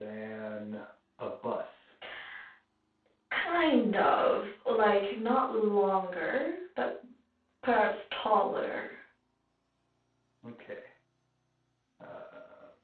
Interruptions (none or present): none